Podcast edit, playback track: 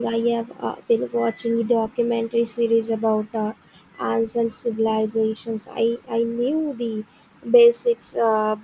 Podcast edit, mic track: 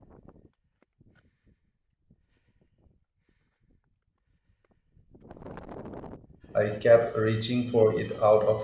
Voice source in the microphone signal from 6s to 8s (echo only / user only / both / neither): user only